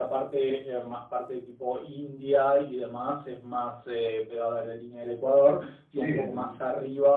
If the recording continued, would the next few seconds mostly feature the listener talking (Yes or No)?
No